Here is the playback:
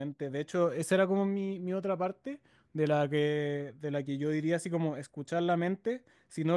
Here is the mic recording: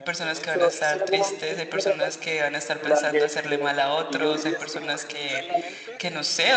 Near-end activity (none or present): present